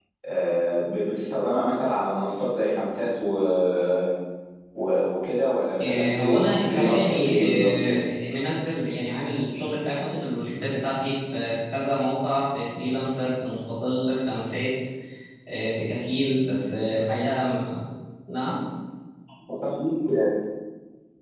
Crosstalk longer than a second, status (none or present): present